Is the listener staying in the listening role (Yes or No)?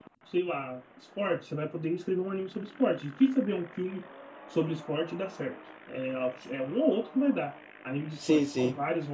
No